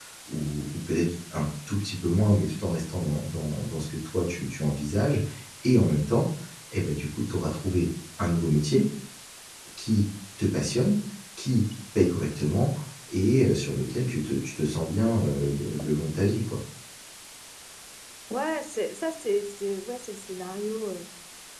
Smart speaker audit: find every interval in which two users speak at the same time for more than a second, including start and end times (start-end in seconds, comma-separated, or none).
none